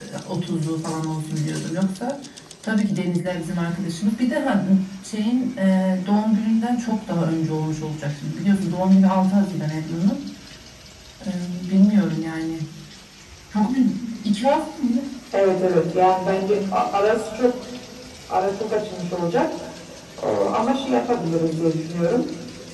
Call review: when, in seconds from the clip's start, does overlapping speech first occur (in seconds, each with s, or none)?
none